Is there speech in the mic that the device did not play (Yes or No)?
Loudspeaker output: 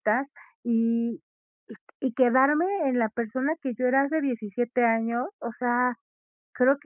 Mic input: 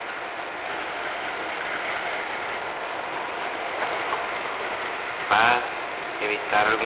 Yes